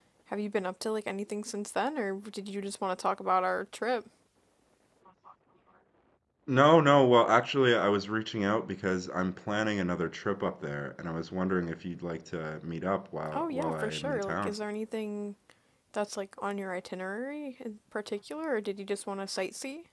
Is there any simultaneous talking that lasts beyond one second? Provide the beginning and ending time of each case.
13.3-14.5

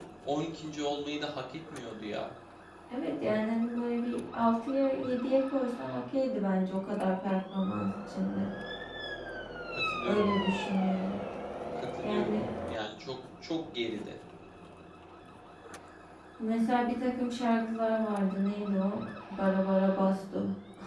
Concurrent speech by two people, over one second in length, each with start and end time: none

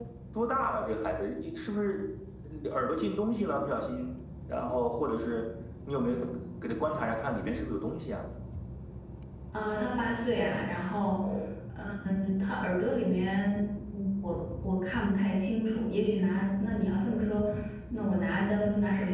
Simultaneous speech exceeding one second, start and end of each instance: none

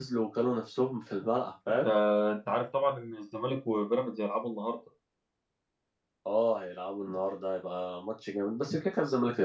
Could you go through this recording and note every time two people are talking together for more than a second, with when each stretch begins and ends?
none

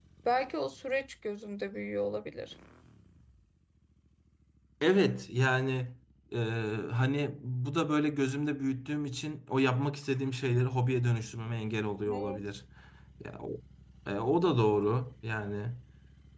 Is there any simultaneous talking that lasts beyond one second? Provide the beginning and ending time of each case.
none

